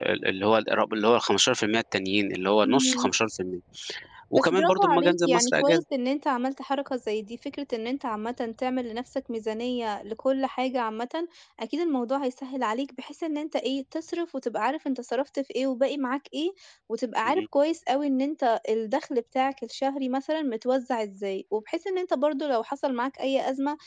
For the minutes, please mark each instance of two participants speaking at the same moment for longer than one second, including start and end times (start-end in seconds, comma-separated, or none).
4.3-5.8